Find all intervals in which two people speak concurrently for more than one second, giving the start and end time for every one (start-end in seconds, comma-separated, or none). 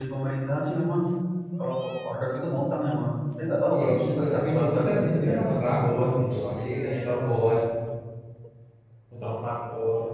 3.7-5.4